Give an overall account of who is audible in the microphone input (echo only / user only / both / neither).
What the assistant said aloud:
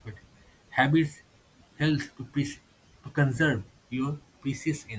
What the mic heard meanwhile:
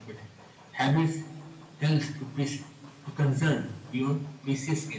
echo only